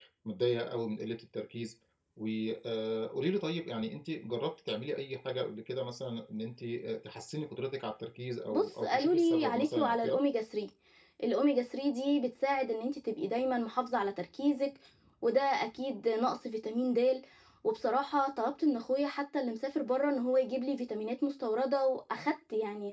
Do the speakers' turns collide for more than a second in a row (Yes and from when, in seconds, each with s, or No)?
Yes, from 8.5 s